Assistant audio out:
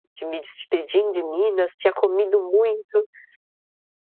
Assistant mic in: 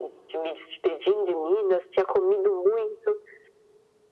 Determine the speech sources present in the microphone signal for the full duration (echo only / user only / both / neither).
echo only